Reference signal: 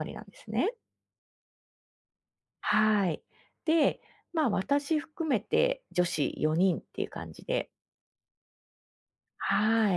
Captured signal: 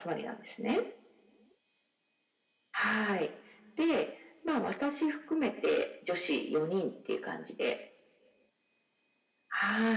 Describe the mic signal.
echo only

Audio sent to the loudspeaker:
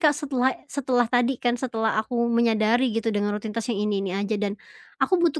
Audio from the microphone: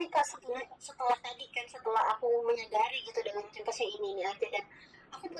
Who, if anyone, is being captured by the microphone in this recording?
echo only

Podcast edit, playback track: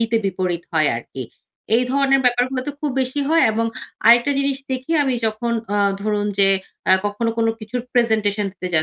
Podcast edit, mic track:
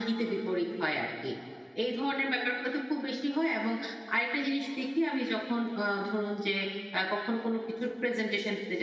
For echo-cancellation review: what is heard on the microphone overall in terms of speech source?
echo only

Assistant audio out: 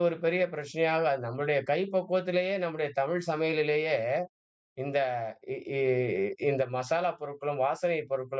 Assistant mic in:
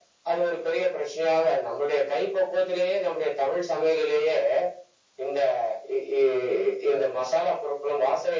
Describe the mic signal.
echo only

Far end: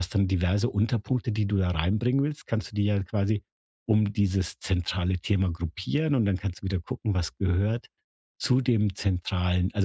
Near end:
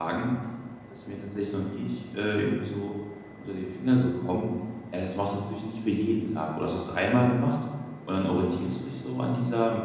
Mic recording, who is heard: user only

